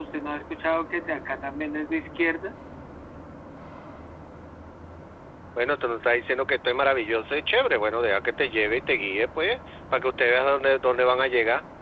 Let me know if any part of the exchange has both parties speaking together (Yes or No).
No